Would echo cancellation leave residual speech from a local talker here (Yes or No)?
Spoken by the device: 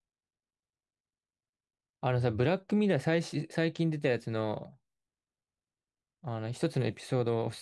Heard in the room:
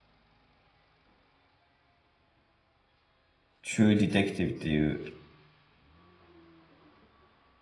Yes